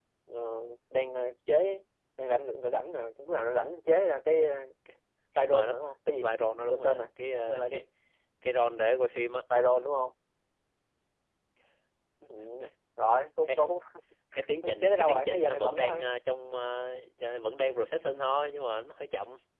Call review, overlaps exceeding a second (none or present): present